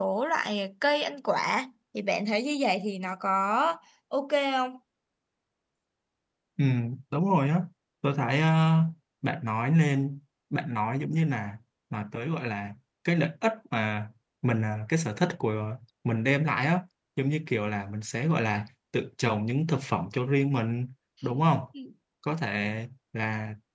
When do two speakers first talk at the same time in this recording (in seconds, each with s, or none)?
none